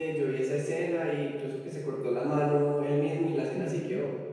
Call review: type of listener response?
taking over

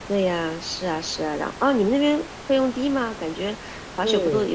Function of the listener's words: taking over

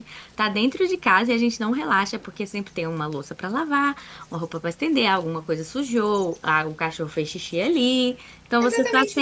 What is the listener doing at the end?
taking over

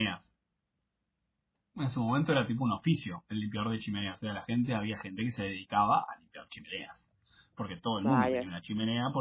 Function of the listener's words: listening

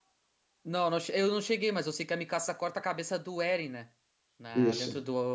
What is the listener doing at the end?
listening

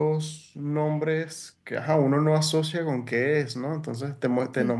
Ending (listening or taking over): listening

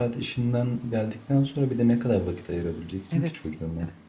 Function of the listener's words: taking over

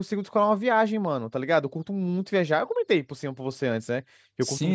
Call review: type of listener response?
taking over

